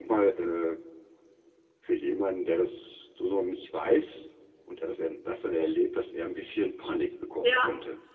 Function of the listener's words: taking over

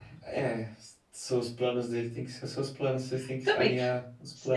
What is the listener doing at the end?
taking over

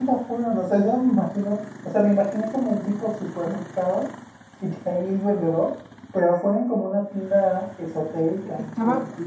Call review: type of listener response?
taking over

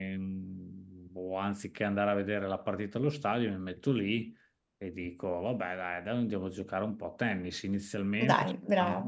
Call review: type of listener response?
listening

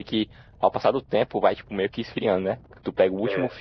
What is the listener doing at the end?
listening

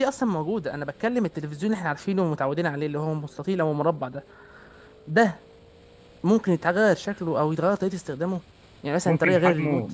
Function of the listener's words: taking over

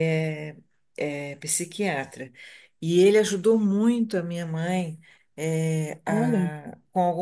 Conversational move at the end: listening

